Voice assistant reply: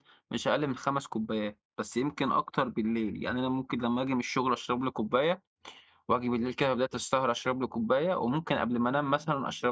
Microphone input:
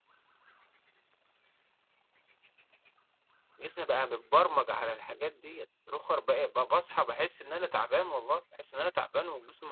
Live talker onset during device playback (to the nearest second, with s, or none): 4 s